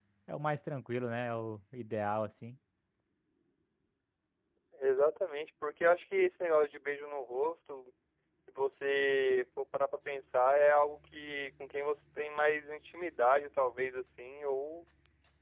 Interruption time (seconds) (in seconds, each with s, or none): none